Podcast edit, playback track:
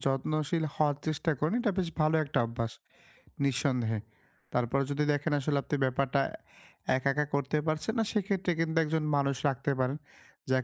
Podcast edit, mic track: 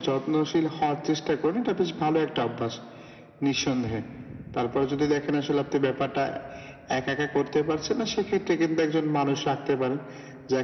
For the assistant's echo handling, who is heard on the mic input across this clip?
echo only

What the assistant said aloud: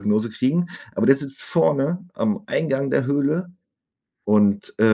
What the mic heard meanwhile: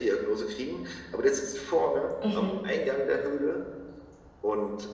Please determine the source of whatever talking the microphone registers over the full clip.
both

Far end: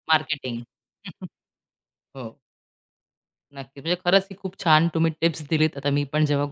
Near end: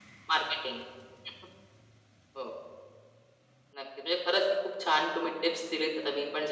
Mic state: echo only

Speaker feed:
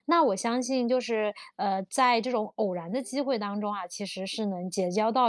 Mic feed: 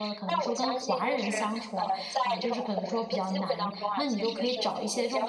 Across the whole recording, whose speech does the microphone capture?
both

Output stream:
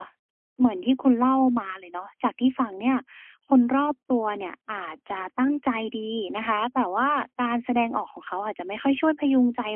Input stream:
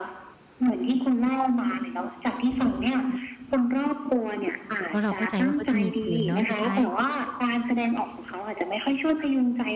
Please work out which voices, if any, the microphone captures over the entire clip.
both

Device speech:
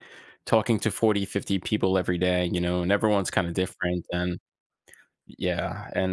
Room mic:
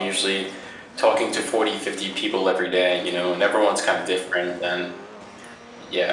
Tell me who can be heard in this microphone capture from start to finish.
echo only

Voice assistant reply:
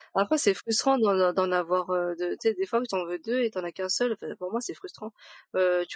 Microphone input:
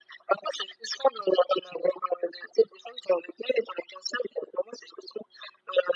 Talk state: echo only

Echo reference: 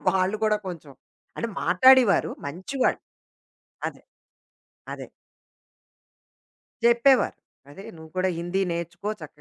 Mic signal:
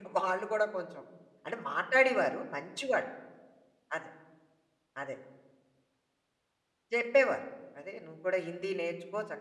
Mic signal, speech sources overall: echo only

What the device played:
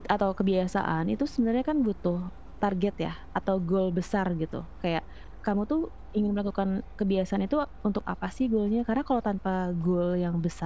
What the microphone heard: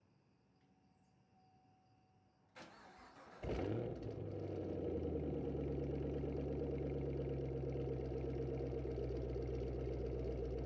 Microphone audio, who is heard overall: neither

